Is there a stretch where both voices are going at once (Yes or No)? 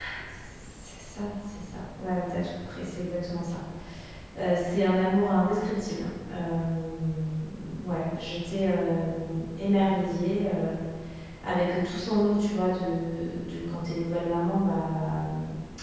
No